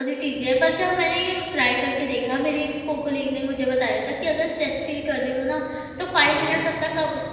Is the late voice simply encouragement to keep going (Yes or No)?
Yes